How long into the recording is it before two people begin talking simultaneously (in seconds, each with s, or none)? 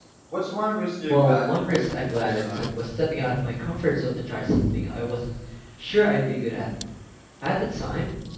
1.1 s